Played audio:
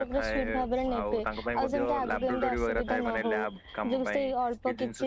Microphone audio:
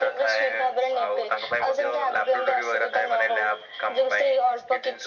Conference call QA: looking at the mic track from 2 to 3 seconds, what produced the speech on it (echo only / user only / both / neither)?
echo only